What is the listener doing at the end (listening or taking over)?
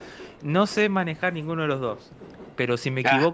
listening